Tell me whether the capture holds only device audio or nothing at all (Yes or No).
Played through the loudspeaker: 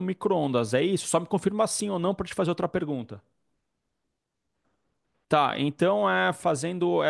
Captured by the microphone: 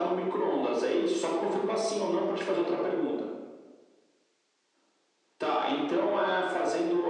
Yes